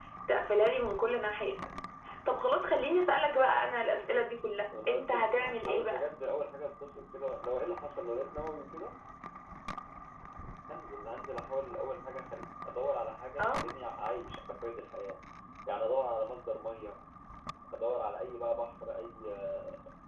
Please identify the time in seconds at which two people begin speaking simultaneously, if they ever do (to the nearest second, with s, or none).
5 s